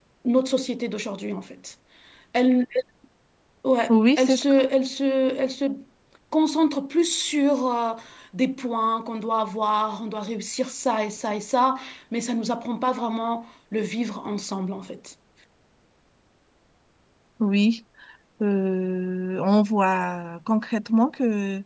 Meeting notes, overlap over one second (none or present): none